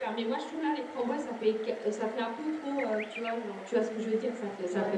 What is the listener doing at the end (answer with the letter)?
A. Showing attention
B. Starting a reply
B